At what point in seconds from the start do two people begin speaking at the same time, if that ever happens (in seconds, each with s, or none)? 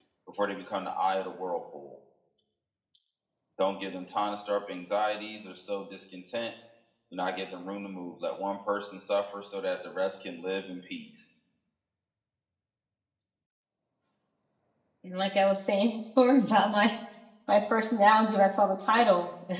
none